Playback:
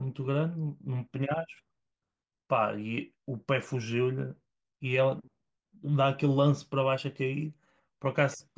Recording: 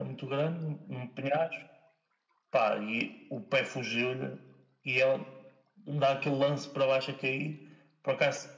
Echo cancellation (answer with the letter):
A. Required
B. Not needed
A